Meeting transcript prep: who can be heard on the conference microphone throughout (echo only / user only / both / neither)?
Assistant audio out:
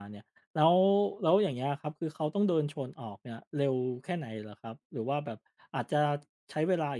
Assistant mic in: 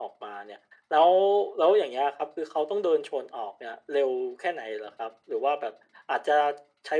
echo only